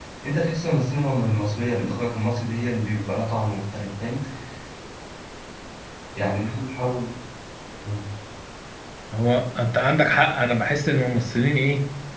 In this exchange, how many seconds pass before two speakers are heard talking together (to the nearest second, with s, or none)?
none